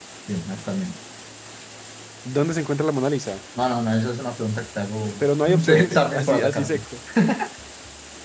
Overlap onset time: 5.0 s

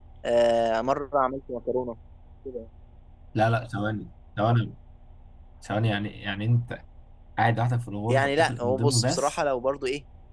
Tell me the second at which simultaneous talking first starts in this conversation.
8.1 s

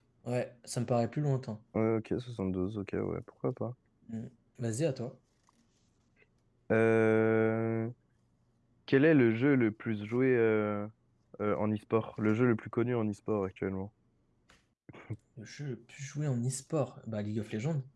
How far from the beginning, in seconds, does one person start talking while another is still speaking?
none

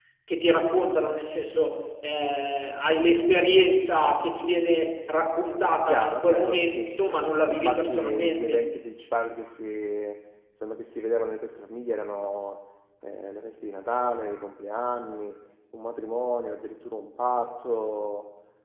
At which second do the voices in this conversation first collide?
5.9 s

